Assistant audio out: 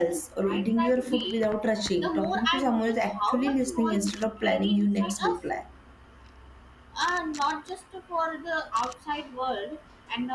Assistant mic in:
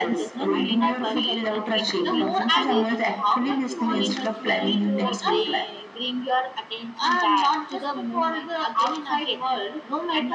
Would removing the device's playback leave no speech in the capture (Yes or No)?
No